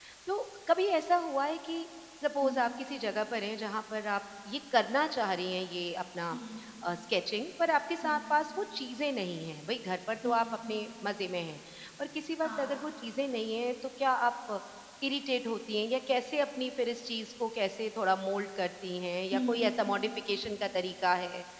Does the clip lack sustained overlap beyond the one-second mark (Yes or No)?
Yes